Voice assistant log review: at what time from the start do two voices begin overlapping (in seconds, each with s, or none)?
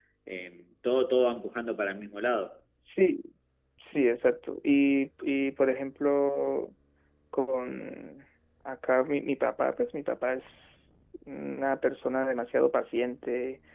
none